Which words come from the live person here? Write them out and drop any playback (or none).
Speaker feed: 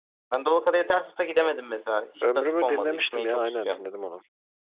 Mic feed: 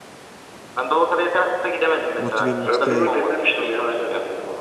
Motive'nin işte